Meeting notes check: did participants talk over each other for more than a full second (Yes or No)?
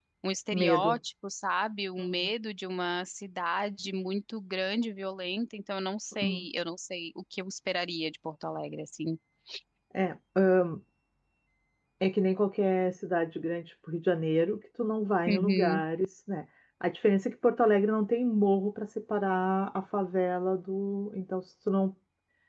No